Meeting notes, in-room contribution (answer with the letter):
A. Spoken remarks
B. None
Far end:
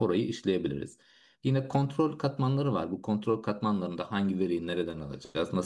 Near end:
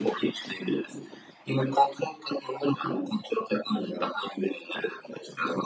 B